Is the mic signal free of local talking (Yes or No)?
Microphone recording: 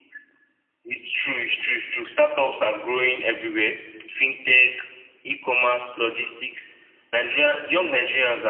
Yes